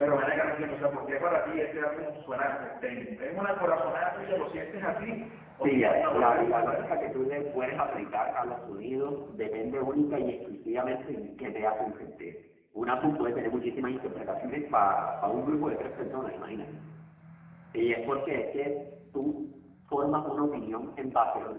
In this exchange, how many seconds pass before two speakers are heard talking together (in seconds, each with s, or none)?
5.6 s